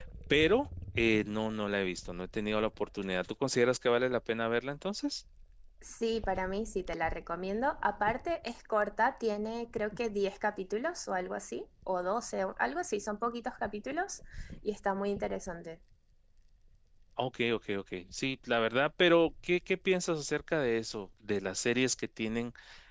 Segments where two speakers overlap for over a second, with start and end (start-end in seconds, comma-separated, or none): none